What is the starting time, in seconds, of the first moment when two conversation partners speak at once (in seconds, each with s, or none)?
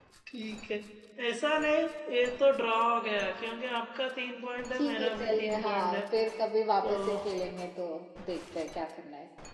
4.4 s